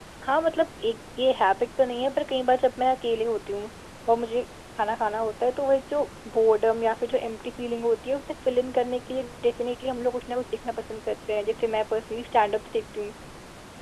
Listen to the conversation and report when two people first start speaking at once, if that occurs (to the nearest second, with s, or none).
none